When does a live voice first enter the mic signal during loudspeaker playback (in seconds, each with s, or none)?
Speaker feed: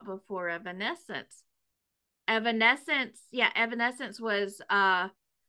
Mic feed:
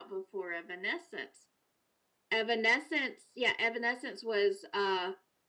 none